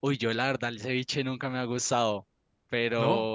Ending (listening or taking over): listening